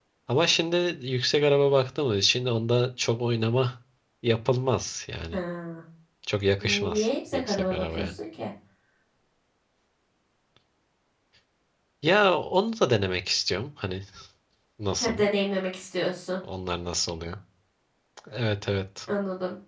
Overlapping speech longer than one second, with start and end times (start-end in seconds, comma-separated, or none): 6.6-8.1